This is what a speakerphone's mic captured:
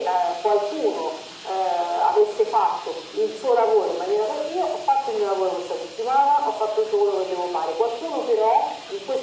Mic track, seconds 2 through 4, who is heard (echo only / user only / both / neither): echo only